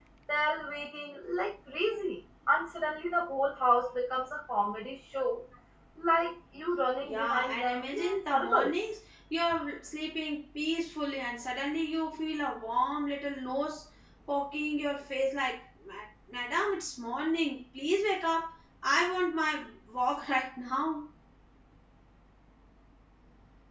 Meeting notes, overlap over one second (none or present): present